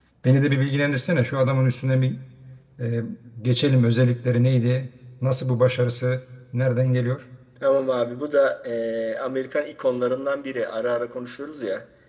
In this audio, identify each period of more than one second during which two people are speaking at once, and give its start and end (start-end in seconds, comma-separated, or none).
none